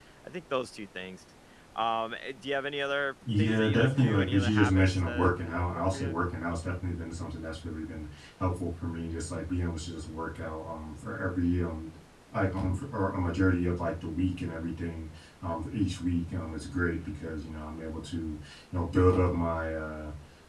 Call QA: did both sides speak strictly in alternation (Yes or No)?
No